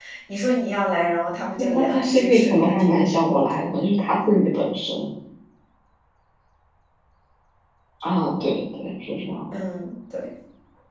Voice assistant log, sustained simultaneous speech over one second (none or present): present